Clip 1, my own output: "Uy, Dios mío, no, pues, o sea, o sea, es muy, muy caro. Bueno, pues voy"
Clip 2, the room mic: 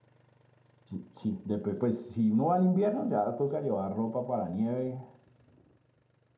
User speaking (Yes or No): Yes